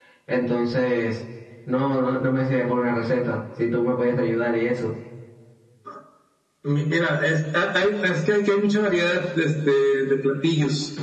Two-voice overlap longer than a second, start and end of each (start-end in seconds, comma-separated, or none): none